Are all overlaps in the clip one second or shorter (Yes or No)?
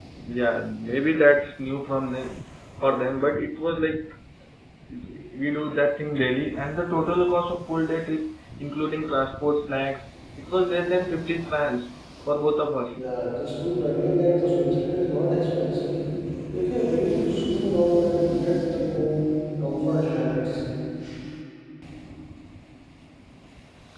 Yes